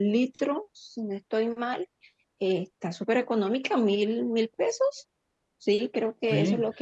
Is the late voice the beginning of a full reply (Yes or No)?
Yes